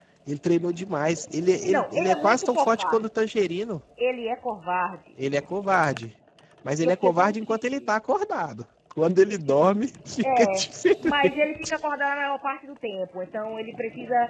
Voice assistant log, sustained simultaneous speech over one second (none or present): present